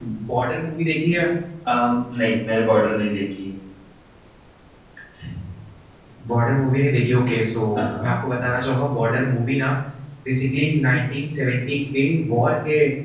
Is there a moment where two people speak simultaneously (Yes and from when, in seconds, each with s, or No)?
No